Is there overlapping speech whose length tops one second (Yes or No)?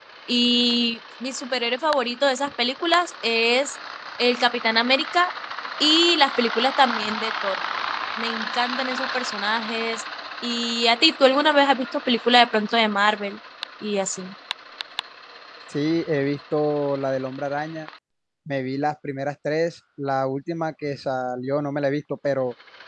No